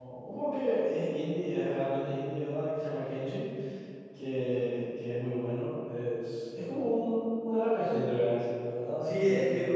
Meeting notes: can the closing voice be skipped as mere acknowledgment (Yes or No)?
No